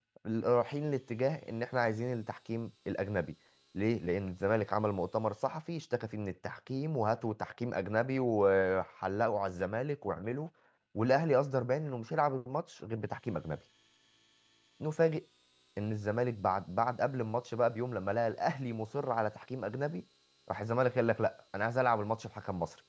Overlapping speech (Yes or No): No